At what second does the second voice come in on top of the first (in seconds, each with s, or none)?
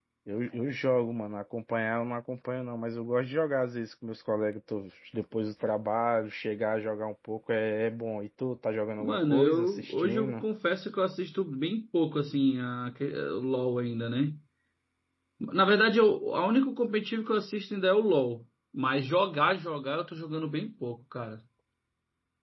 9.0 s